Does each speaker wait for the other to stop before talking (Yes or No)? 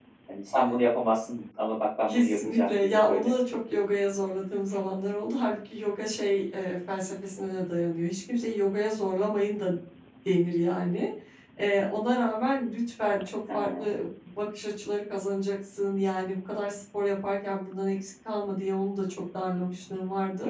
No